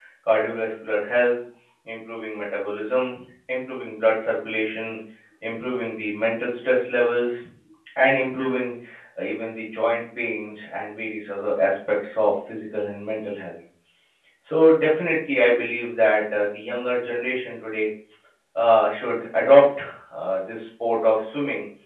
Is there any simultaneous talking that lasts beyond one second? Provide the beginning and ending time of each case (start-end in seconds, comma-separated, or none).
none